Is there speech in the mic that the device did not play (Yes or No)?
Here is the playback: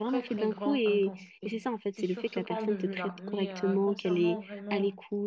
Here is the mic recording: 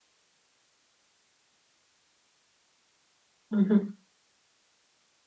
Yes